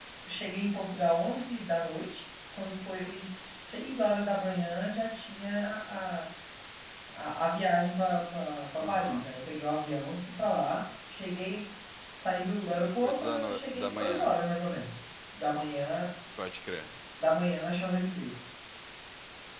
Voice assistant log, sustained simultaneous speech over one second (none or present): present